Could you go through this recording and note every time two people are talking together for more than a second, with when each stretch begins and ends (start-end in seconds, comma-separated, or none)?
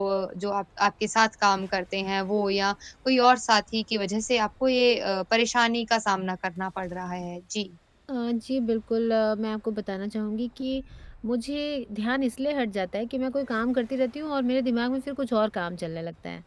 none